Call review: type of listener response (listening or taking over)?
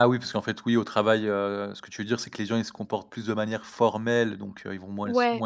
listening